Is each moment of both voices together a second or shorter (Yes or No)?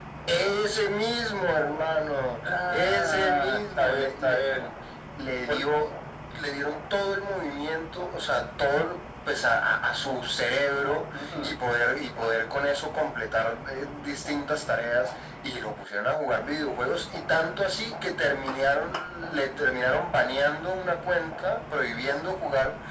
No